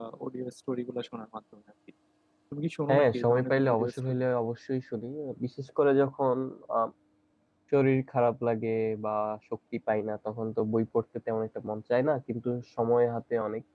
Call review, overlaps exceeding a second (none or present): present